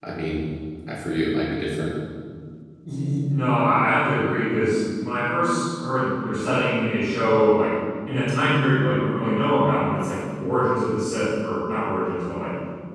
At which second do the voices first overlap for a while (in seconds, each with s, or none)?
none